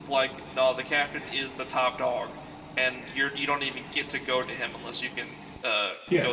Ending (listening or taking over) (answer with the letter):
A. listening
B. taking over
B